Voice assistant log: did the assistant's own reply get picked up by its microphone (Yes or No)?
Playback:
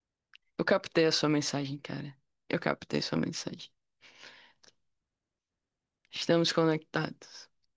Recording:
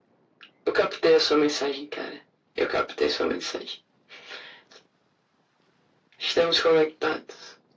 Yes